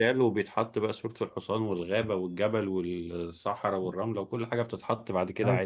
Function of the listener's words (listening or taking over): taking over